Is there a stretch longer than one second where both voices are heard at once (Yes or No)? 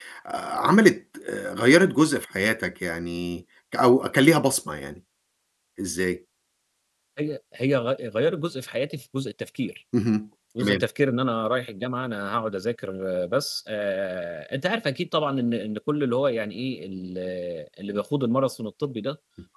No